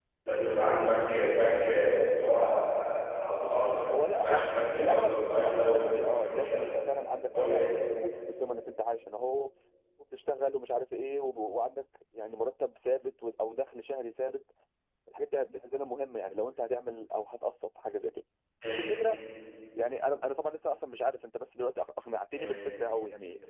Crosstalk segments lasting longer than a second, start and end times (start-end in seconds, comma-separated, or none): 3.9-6.6